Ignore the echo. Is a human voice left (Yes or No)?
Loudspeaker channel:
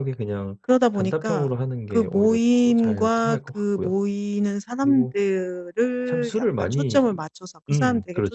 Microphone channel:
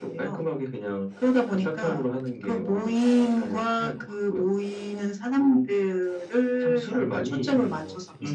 Yes